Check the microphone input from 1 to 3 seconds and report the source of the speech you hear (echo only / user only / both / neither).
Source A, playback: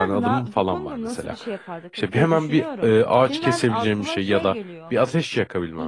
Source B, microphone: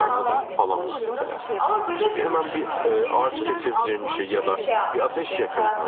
both